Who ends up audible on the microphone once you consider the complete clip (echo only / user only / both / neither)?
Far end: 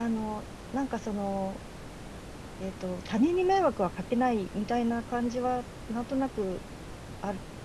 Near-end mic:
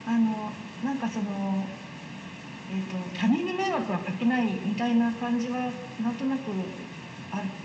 echo only